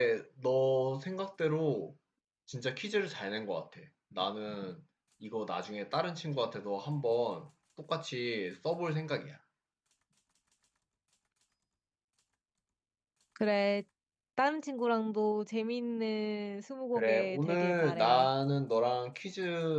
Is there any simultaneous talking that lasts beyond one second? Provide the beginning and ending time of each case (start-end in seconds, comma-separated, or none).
17.0-18.3